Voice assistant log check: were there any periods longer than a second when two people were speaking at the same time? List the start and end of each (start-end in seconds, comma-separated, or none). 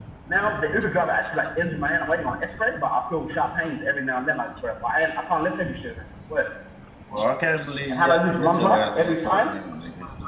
7.9-9.5